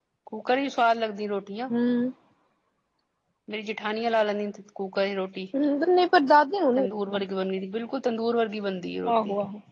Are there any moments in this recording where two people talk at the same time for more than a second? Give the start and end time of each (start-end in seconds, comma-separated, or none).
none